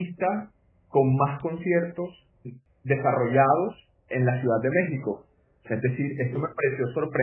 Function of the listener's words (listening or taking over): listening